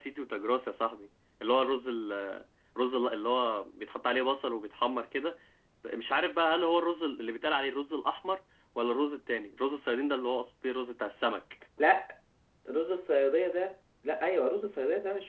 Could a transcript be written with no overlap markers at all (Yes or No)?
Yes